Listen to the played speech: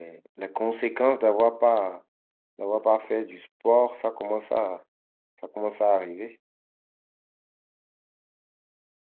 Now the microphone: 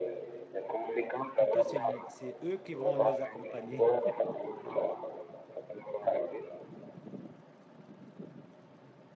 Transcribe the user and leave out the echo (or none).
Plutôt, c'est, l- c'est eux qui vont nous accompagner.